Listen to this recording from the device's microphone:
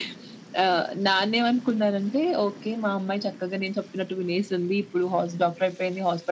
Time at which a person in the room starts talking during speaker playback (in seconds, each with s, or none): none